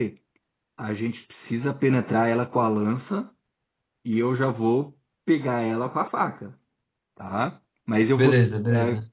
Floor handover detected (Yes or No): No